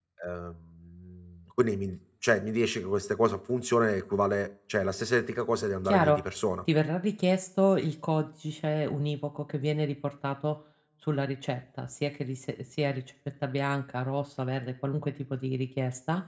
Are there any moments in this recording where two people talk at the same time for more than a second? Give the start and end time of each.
none

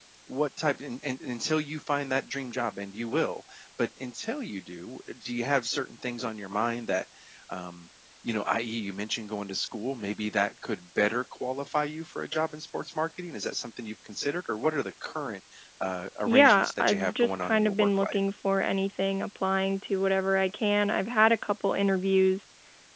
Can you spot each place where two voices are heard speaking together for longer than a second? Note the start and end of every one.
16.3-18.2

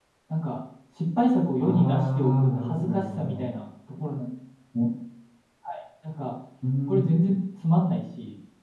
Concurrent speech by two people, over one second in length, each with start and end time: 1.6-3.5

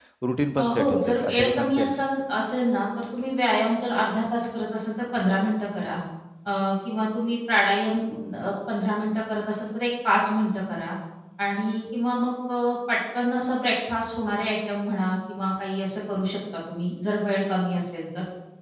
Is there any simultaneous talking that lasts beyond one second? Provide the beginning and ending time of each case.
0.6-2.0

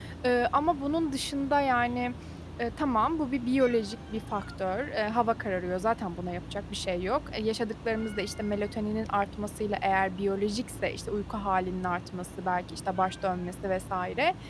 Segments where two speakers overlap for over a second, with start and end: none

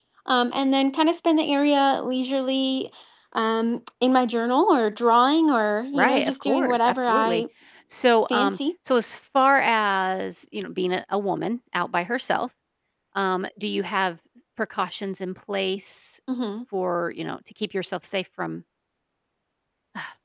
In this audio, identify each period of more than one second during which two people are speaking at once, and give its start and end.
5.9-7.4

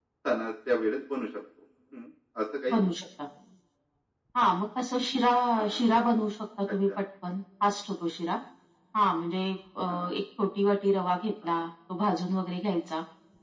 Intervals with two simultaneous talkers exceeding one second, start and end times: none

